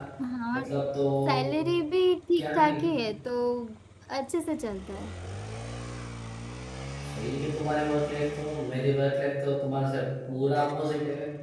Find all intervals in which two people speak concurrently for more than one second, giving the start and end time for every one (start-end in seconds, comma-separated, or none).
none